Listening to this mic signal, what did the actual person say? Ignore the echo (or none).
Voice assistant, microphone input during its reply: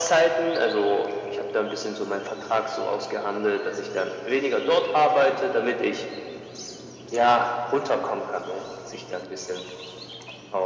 none